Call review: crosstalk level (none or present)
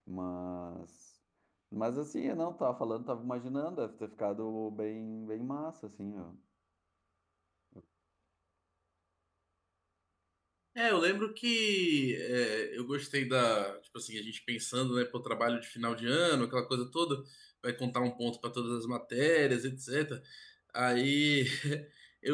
none